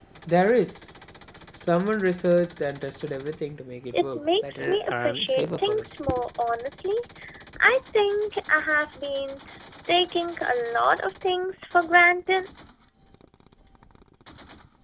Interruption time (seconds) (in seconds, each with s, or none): 3.9 s